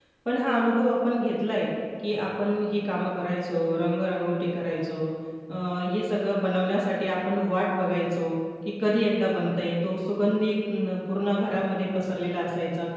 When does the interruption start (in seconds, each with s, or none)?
none